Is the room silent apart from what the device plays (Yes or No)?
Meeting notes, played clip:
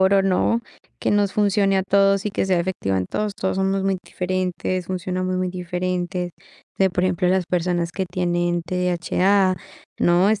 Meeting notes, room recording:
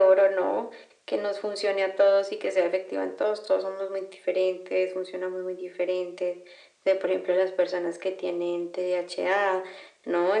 Yes